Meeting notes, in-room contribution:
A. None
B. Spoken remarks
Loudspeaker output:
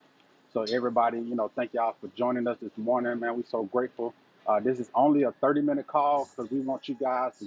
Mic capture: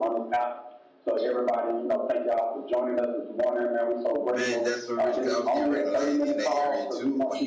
B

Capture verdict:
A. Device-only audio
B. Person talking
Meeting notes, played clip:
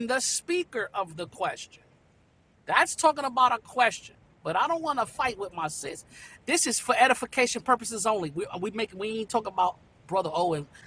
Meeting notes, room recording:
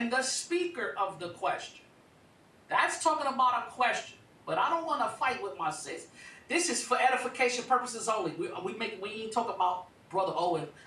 A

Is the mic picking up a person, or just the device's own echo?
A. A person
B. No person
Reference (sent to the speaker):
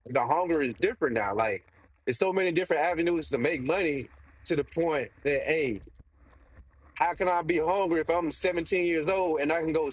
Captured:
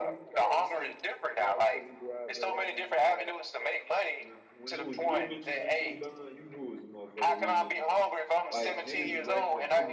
A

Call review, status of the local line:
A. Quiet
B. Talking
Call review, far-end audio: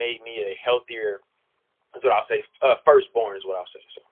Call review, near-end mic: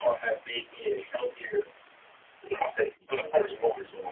B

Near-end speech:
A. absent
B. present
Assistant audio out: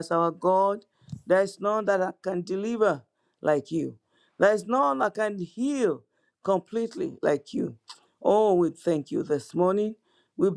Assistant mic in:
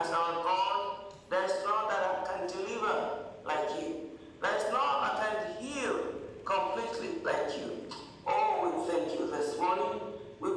A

